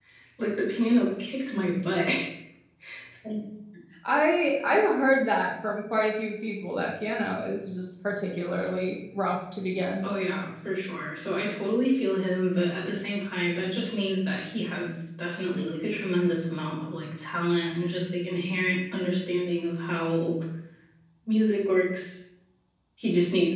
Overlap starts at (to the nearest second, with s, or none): none